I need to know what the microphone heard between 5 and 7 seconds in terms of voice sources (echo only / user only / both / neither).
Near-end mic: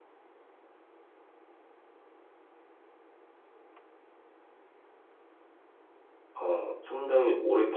user only